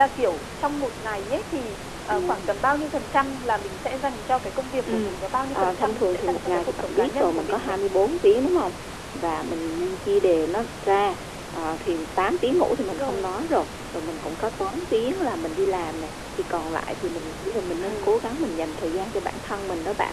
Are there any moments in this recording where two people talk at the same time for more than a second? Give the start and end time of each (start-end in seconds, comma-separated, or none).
5.5-7.7